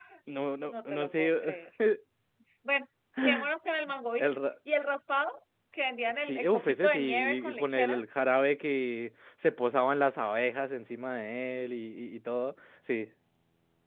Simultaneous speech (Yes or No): Yes